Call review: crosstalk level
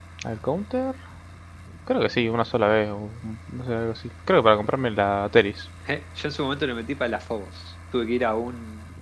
none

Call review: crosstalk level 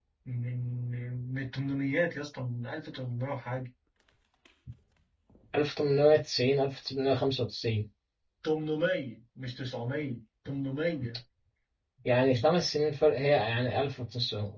none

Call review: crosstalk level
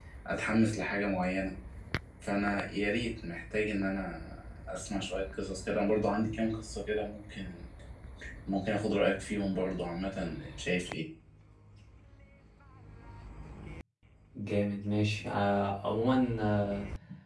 none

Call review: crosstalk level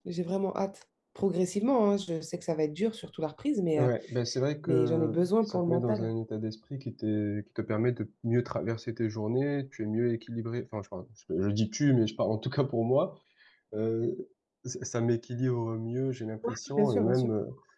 present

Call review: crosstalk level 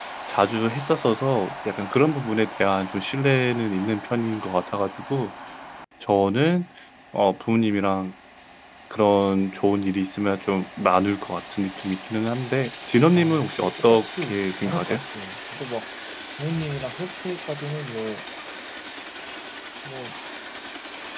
present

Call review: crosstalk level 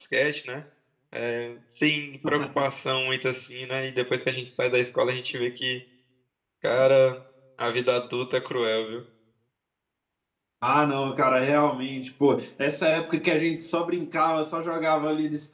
none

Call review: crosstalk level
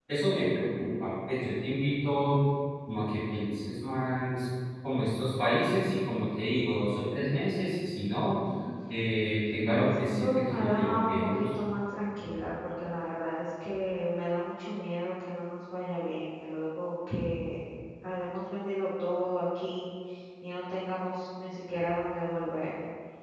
present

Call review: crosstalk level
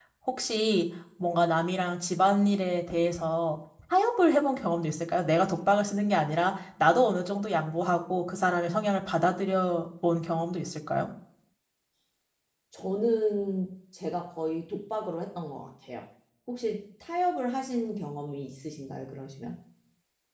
none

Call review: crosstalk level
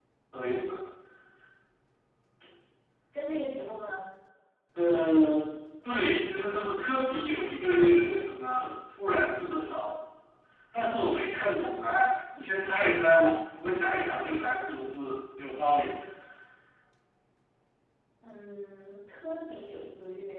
none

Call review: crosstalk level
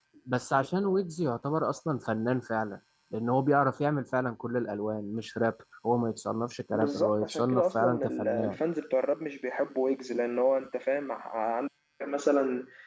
present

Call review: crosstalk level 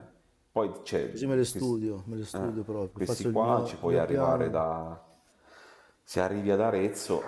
present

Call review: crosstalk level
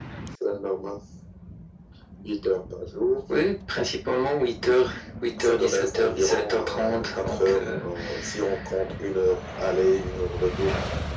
present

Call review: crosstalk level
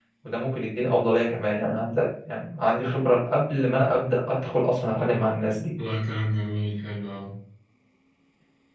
none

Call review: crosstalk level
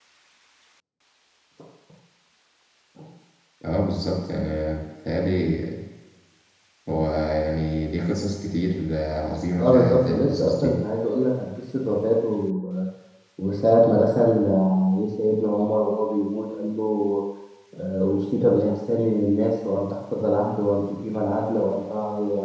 present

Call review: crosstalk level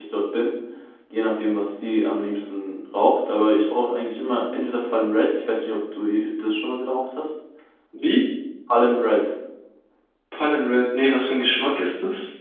none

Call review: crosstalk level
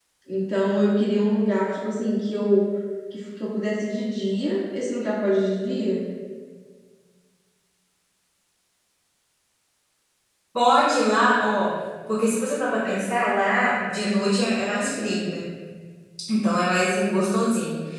none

